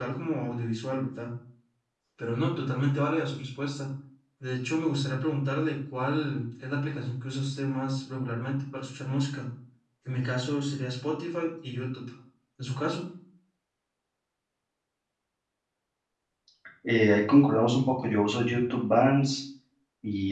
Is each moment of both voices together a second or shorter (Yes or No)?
Yes